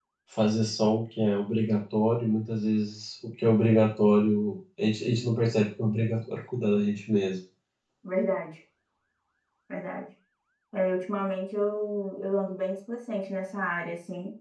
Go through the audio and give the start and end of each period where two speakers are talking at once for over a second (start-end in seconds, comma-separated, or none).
none